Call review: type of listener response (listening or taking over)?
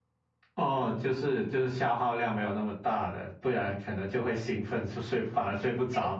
taking over